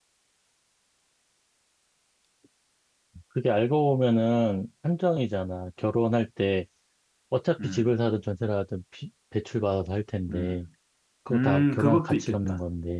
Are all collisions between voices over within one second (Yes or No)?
No